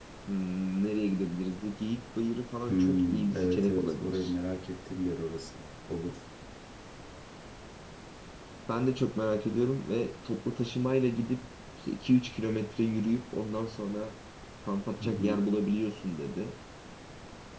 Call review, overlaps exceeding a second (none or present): present